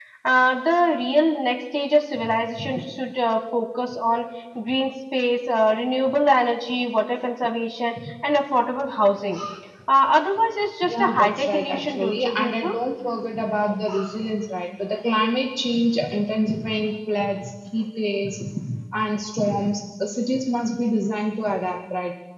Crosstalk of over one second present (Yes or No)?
Yes